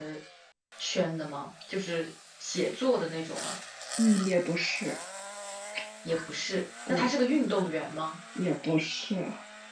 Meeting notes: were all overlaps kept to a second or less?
Yes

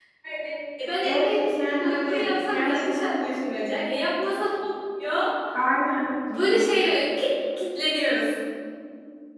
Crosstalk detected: Yes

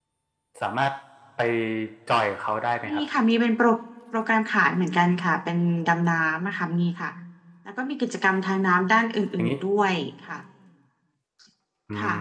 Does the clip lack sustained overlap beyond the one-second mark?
Yes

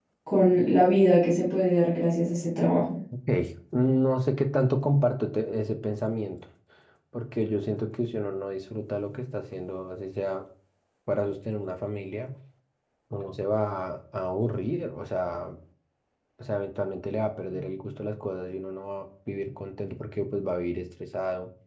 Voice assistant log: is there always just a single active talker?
Yes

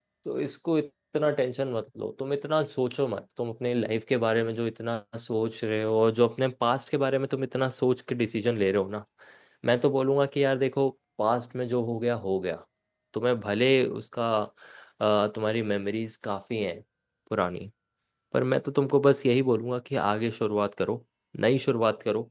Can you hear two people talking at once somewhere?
No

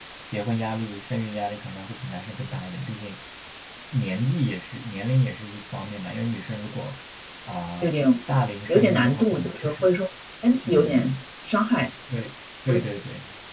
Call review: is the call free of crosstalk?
No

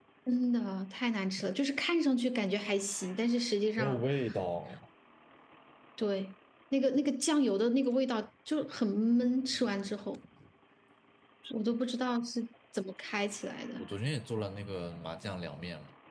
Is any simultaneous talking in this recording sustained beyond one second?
No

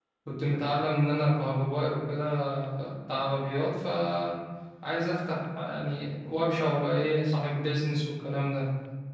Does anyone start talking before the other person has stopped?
No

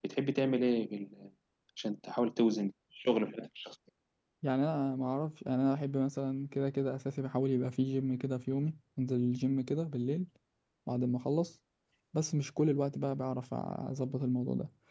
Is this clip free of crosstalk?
Yes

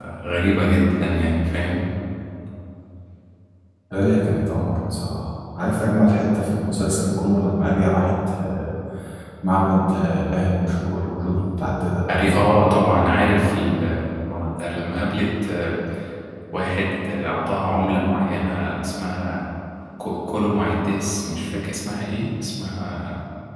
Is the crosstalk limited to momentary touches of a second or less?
Yes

